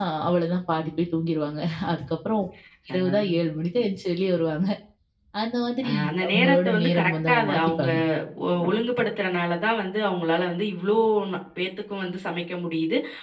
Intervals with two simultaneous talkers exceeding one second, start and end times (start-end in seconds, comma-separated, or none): 5.9-7.9